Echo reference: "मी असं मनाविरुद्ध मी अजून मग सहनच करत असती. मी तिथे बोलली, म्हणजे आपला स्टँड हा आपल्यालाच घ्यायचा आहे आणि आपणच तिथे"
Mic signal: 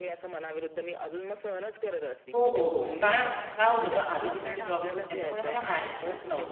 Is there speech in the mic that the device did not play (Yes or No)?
Yes